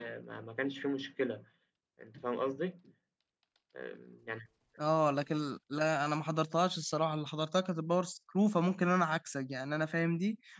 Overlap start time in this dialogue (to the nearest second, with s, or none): none